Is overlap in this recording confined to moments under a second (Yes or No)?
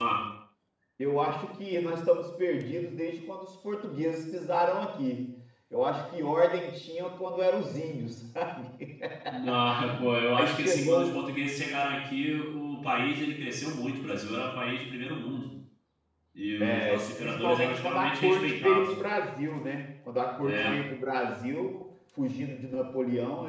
No